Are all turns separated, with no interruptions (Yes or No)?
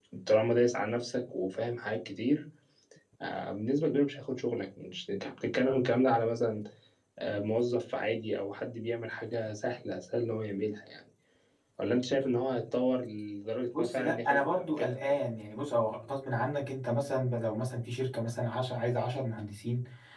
No